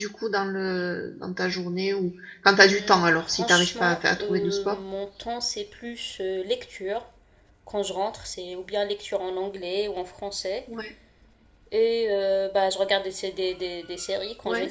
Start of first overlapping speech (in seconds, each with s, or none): 2.6 s